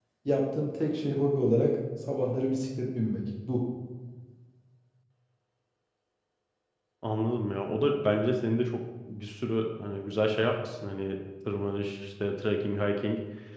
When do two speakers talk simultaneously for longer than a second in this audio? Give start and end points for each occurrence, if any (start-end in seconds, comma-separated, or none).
none